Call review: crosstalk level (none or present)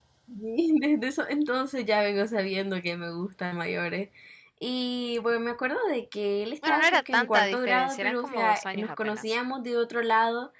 present